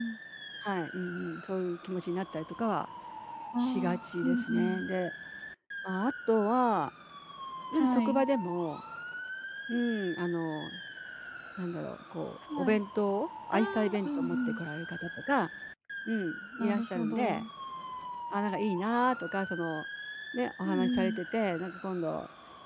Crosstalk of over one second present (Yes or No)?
Yes